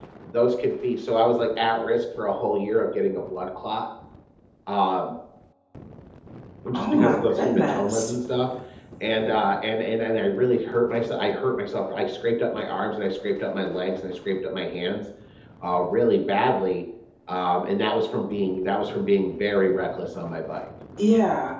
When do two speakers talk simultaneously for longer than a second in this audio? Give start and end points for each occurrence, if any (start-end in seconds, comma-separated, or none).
6.8-8.1